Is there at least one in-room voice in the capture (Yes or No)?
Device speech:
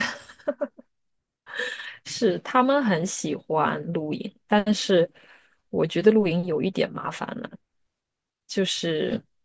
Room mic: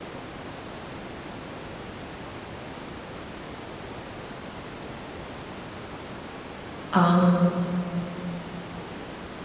Yes